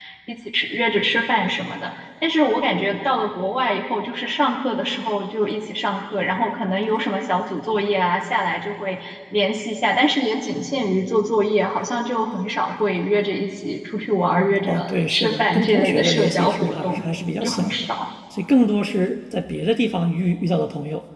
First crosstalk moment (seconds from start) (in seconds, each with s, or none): 14.7 s